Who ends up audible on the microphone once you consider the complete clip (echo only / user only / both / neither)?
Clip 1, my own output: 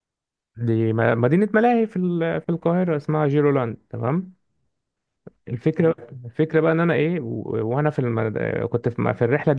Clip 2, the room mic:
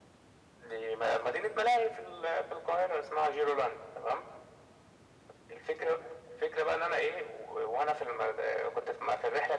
echo only